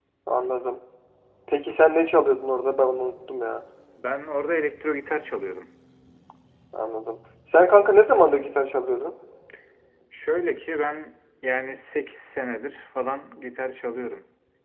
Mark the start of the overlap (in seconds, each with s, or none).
none